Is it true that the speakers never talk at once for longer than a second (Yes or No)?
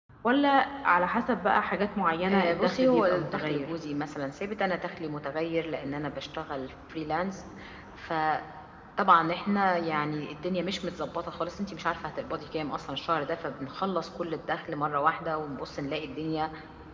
No